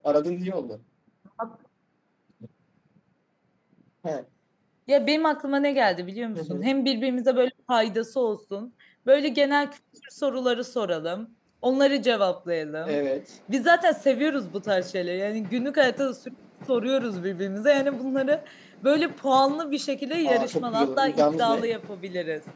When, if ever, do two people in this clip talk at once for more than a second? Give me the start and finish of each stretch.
20.2-21.7

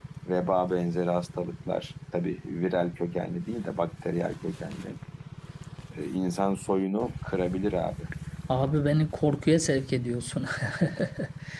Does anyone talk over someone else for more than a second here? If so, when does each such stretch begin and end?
none

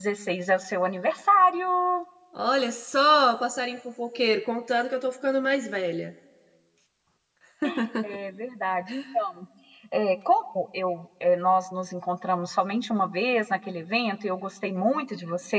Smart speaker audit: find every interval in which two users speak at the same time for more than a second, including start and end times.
none

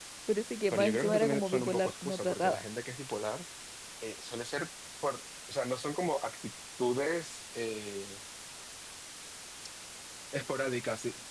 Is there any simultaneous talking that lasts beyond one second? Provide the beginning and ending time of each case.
0.7-2.6

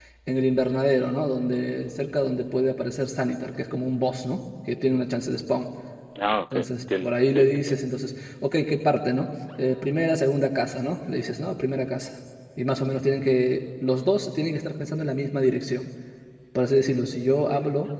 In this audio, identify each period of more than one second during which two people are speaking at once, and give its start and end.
6.5-7.7

